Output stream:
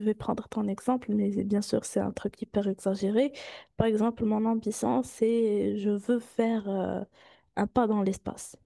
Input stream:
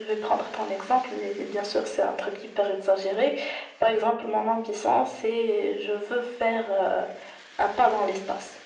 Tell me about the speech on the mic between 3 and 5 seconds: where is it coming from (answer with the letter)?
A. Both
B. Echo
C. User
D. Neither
B